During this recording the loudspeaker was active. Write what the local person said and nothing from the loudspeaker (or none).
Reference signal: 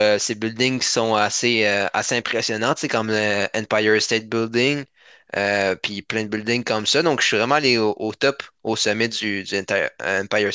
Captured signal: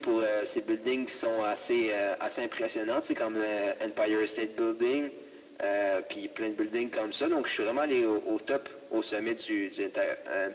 none